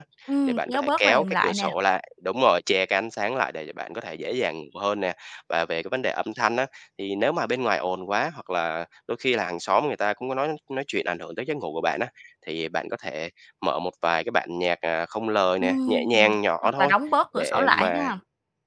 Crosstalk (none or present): present